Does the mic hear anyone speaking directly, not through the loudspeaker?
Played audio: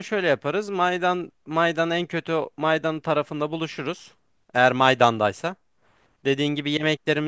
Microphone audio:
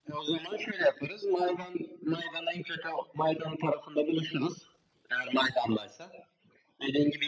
No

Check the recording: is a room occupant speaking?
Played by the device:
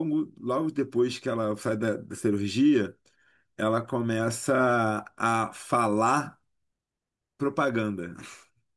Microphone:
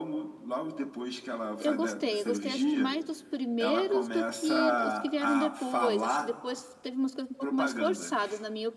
Yes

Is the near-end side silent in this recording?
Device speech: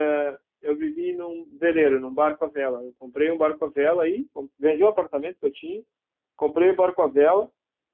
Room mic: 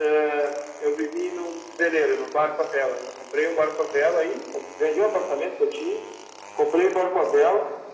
Yes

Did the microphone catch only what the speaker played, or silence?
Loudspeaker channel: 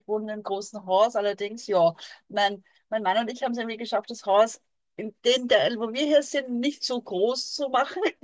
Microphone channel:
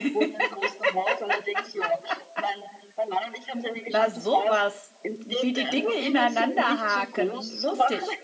No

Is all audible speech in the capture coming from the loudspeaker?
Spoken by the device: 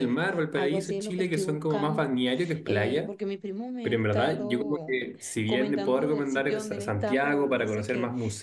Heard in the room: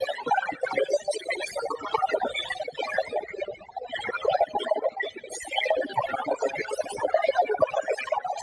Yes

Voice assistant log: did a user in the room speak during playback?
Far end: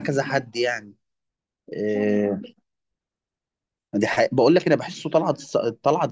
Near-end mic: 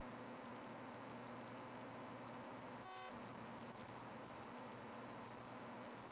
No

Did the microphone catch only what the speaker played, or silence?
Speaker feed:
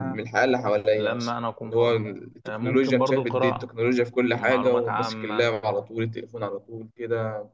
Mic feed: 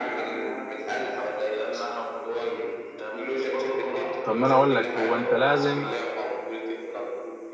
No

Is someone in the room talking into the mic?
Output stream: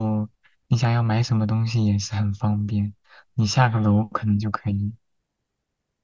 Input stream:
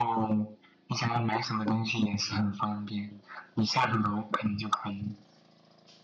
No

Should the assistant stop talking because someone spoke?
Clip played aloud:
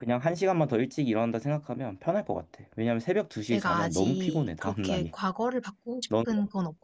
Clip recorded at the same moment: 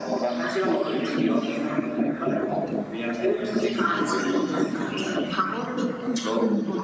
No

